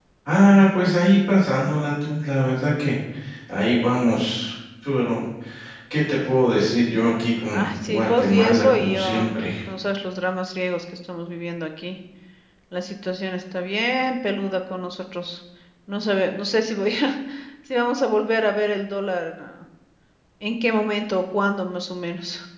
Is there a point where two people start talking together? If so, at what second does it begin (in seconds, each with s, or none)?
7.5 s